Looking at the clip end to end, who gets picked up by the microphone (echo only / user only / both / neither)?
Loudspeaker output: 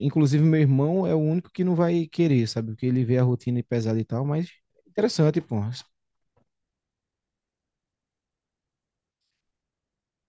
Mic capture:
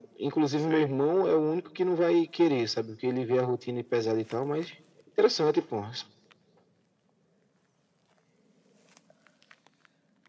both